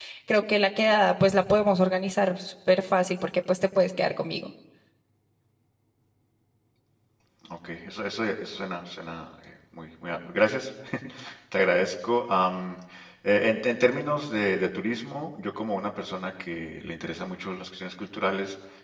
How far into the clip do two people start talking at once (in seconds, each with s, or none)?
none